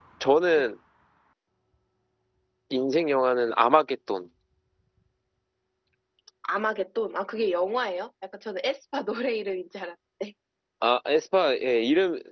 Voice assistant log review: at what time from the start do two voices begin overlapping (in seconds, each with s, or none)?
none